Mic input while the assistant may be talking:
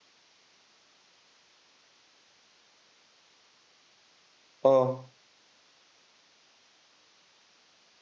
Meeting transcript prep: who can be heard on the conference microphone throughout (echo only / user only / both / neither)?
user only